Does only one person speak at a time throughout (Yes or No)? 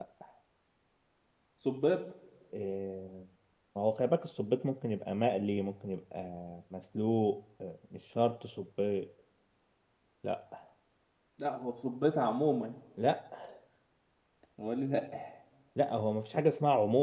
Yes